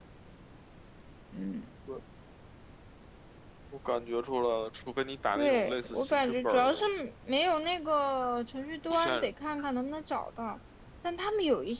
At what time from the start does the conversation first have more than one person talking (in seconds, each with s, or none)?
5.3 s